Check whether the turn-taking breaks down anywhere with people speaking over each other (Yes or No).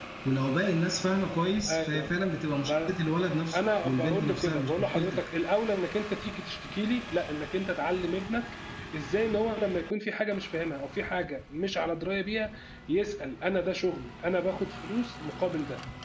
Yes